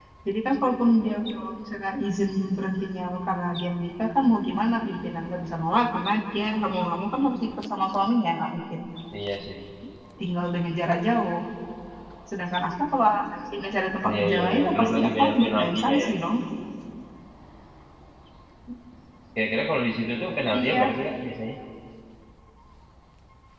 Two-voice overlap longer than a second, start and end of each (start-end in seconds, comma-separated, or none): 14.1-16.1